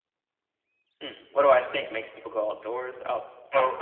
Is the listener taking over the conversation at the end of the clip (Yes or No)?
Yes